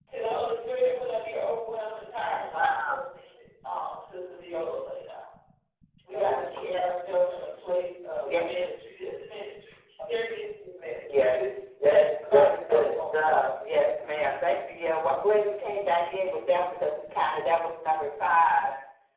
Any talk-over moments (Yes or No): Yes